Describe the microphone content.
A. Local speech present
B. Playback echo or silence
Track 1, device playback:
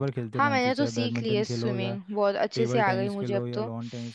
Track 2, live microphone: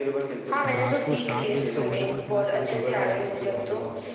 A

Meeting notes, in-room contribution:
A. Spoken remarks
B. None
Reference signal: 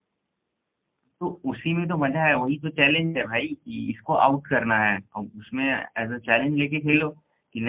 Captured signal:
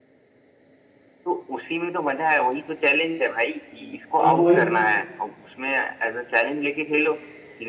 A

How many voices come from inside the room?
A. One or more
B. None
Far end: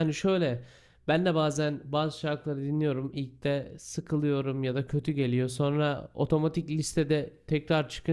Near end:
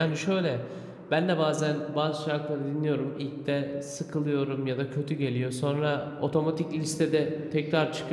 A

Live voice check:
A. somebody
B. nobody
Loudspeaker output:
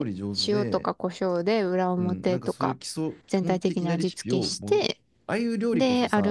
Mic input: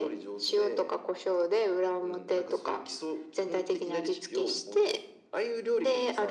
B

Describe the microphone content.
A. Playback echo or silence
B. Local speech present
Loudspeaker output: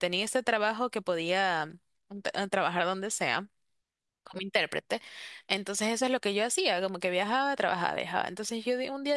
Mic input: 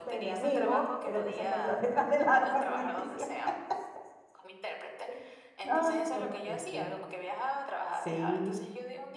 B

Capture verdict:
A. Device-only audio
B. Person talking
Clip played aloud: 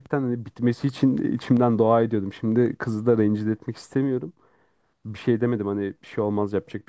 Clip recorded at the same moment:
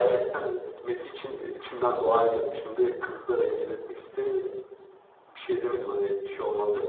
A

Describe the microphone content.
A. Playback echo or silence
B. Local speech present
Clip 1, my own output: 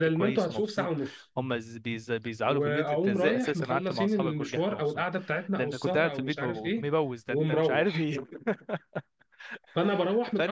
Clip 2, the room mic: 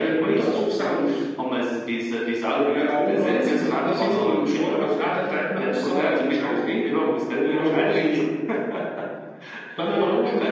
B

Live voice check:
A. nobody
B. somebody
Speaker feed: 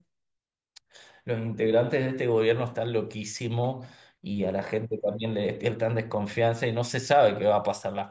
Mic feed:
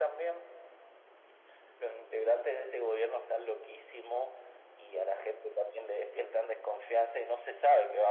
A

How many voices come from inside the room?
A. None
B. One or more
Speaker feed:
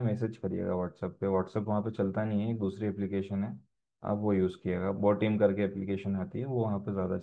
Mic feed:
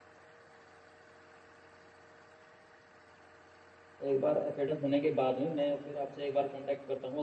B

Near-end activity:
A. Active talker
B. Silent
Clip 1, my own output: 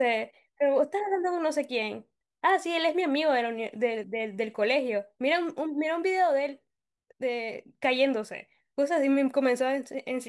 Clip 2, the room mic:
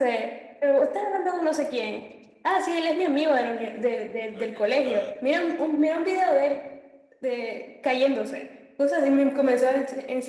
A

